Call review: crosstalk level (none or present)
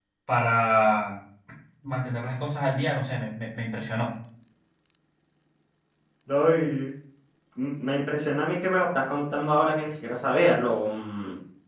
none